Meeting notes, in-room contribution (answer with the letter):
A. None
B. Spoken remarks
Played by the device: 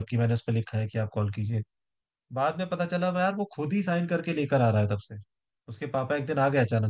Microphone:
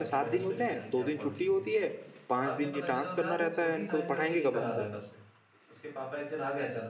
B